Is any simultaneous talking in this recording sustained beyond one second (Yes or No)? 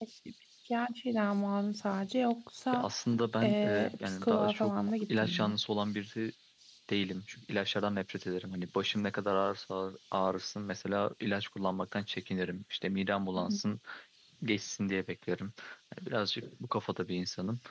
Yes